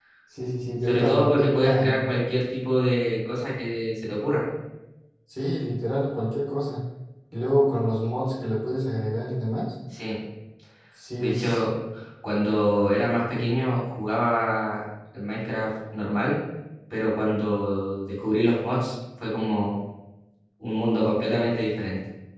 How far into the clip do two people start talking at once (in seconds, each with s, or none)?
0.9 s